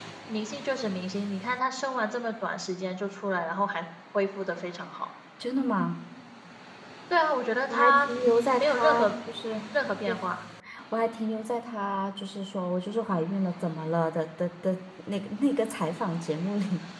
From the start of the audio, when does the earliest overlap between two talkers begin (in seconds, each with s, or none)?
7.7 s